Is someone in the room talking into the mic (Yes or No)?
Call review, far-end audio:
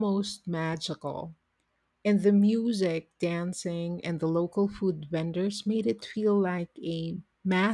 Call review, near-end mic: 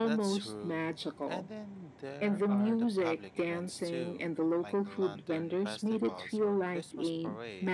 Yes